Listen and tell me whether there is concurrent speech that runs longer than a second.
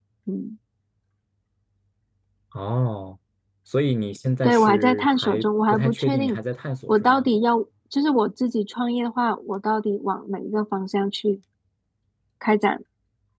Yes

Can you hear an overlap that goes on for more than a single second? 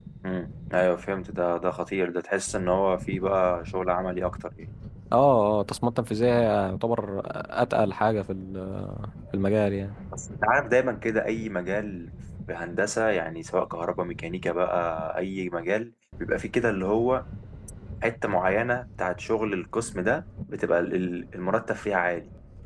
No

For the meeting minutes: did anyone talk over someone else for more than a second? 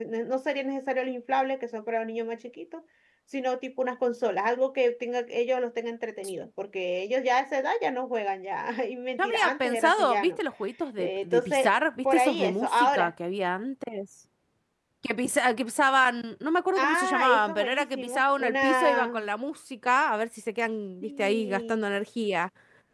Yes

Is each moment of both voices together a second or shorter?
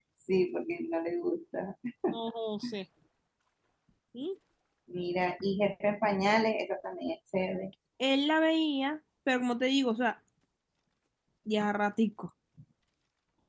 Yes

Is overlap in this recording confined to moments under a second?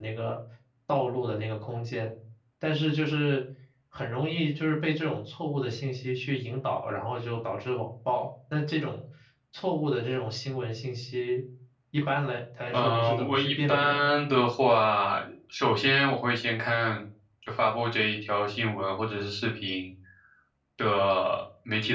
No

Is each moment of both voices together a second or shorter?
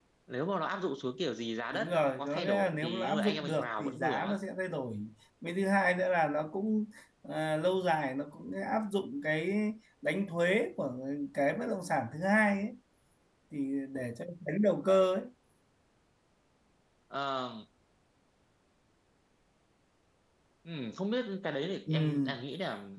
No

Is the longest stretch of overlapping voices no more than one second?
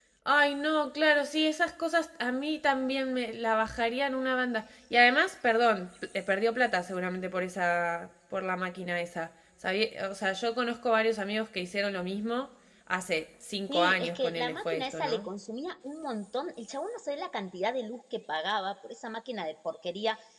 No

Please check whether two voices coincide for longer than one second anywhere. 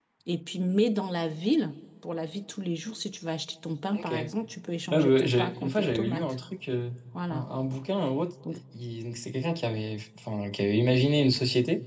Yes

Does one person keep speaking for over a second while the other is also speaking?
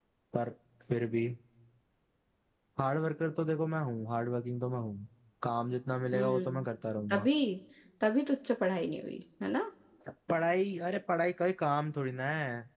No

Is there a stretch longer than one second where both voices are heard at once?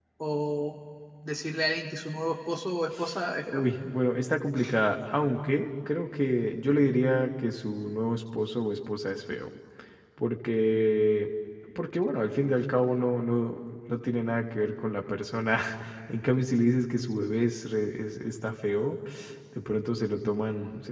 No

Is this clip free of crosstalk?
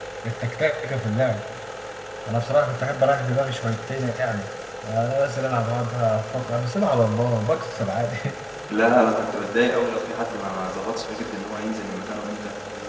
Yes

